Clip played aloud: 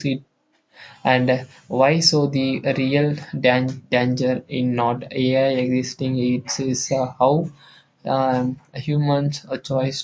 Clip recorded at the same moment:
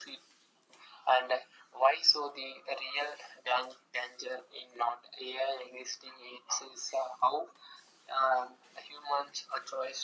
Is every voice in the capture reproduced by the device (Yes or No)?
Yes